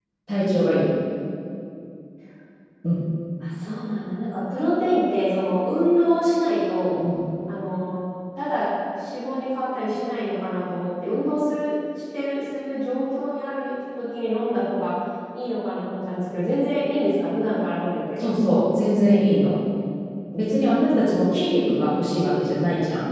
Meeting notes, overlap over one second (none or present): none